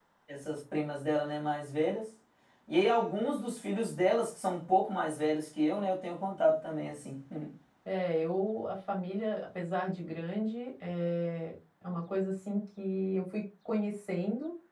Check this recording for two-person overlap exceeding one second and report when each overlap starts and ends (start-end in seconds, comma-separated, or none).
none